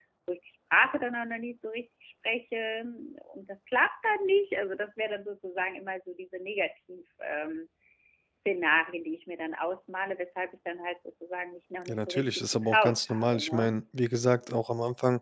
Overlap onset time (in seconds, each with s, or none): 11.9 s